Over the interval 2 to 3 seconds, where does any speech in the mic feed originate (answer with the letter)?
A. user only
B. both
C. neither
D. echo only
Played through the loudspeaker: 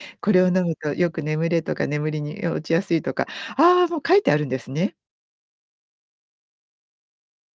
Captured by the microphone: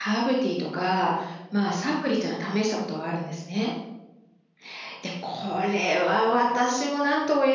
A